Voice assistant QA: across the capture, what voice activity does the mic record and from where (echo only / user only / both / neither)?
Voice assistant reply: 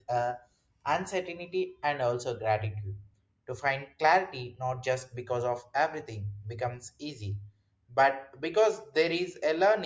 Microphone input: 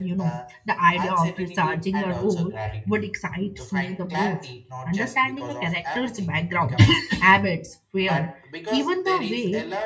both